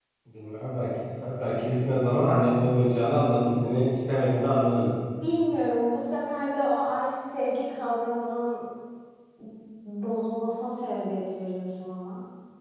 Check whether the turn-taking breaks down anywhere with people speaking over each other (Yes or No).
No